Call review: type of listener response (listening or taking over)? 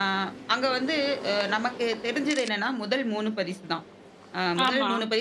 listening